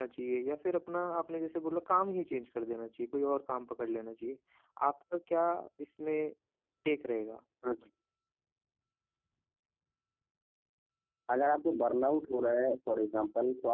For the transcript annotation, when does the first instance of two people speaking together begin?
none

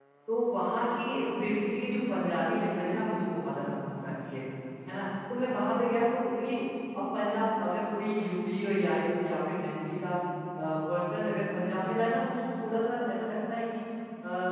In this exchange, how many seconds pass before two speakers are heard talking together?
none

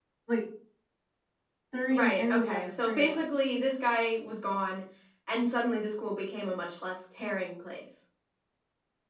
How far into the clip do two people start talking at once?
2 s

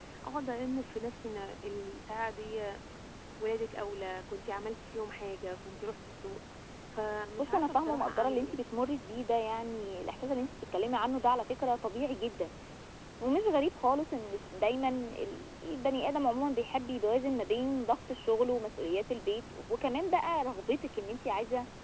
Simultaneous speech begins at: 7 s

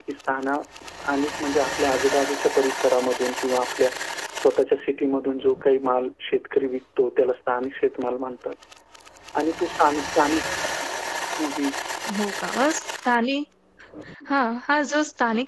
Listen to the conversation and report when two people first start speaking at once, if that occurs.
none

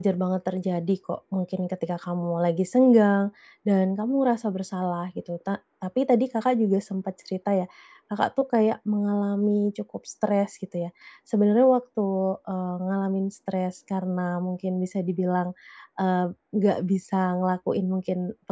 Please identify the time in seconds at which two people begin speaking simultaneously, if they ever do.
none

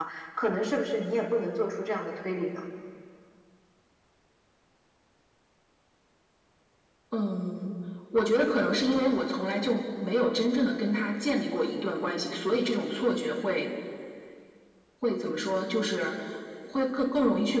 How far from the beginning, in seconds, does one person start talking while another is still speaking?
none

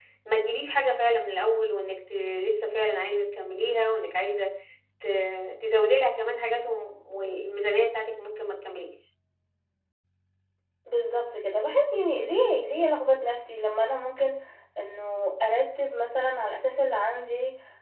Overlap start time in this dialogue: none

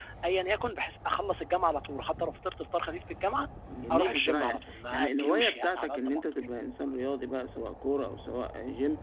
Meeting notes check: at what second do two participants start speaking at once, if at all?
4 s

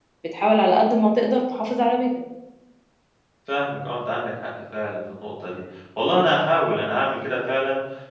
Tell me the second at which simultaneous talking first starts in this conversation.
none

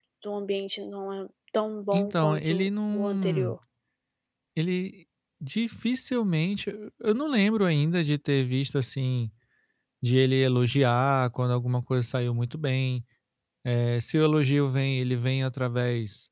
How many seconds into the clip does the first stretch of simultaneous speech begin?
2 s

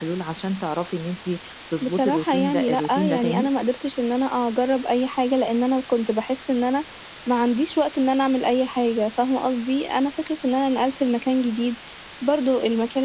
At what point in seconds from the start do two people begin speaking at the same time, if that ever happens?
2 s

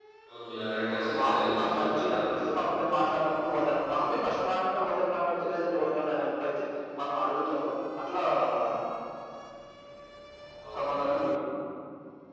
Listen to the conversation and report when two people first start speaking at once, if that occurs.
1 s

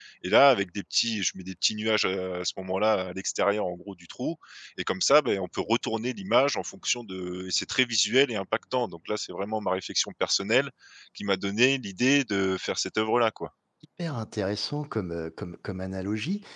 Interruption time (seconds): none

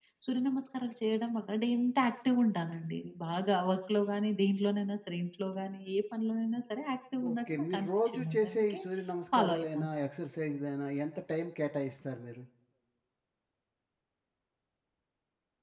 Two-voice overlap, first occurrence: 7 s

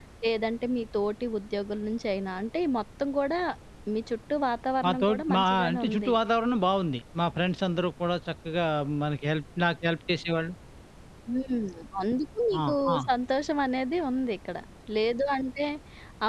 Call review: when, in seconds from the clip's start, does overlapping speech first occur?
5 s

